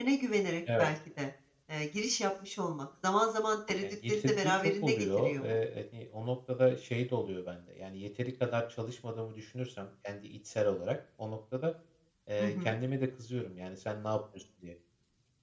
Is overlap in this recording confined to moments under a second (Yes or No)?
No